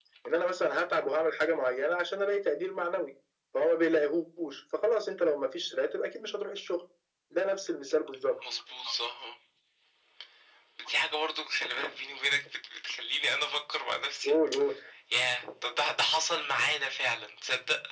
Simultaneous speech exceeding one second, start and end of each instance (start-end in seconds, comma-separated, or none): none